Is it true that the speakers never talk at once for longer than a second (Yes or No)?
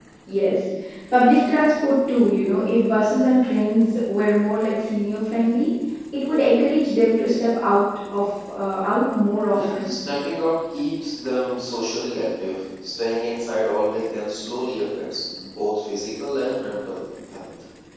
Yes